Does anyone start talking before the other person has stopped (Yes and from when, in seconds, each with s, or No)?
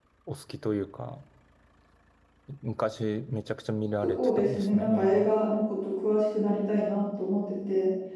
Yes, from 4.0 s